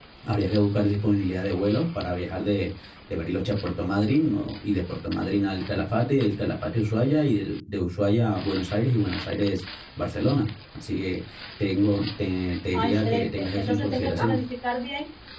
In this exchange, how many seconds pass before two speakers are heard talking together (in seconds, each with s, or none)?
12.7 s